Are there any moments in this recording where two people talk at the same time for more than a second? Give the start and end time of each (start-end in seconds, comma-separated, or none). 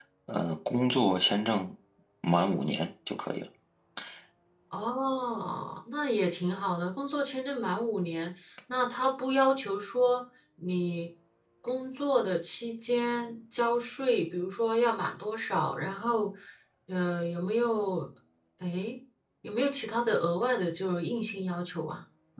none